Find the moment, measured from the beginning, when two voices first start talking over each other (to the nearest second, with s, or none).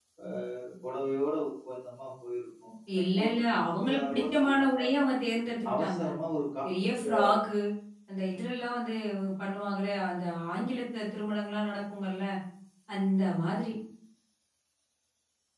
3 s